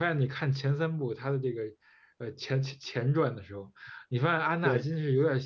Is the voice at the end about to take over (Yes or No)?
No